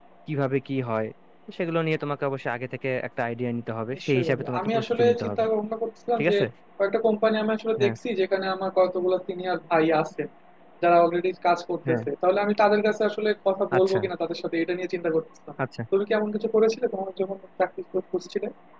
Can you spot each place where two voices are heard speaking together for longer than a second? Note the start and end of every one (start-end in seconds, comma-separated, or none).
4.0-5.4